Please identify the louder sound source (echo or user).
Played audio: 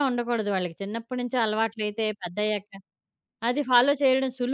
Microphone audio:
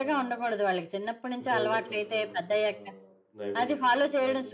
echo